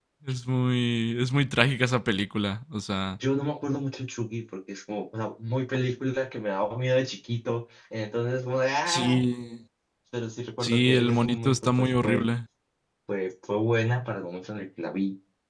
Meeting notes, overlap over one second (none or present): present